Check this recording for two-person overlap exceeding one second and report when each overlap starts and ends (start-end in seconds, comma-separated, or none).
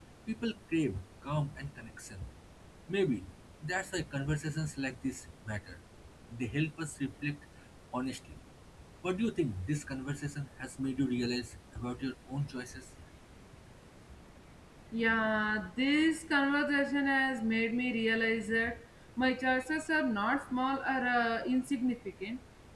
none